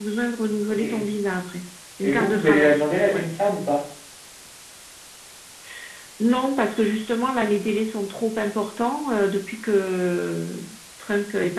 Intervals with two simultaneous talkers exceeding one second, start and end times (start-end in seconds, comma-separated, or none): 2.0-3.3